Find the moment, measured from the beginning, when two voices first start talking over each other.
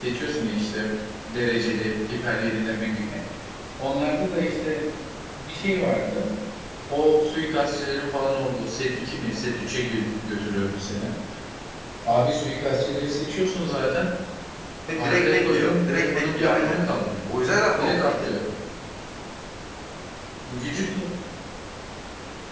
15.0 s

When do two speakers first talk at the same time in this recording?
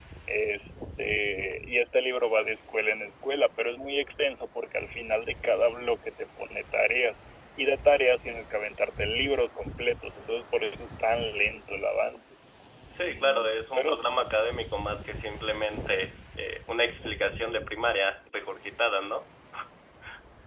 13.0 s

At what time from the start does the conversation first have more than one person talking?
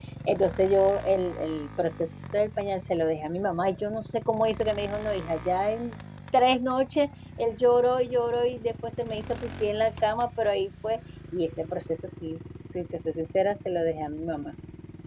none

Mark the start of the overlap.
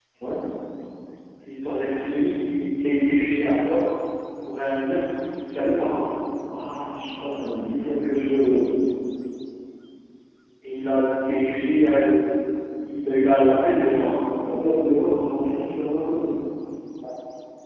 none

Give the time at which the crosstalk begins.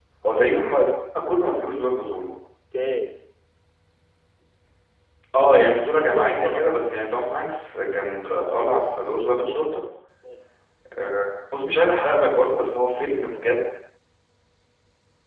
5.6 s

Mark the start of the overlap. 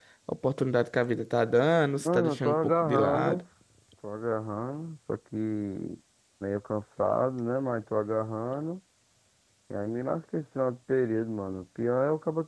2.0 s

